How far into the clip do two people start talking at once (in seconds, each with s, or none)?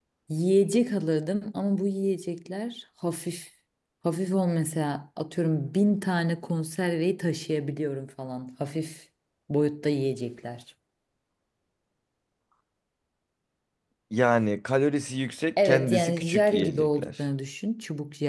15.6 s